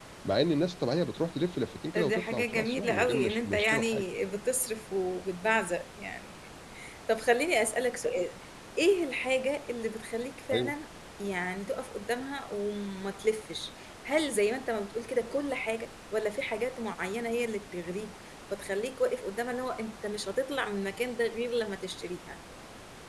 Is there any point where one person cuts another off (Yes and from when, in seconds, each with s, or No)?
Yes, from 1.9 s